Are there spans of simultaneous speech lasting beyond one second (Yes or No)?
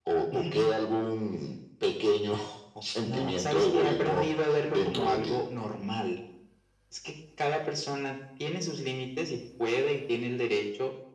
Yes